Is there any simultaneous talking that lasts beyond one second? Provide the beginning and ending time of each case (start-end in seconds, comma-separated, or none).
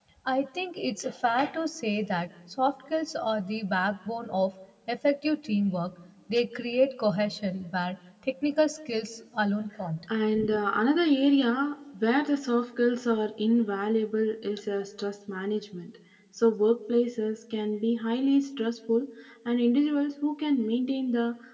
none